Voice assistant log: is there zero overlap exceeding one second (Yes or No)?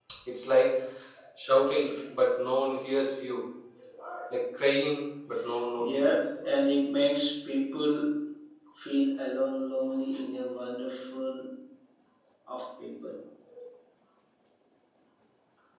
Yes